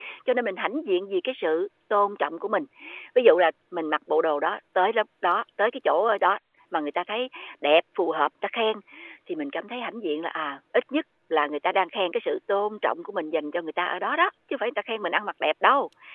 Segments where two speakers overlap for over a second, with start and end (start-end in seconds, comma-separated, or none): none